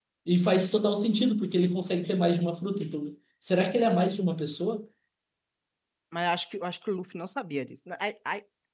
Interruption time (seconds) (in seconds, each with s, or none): none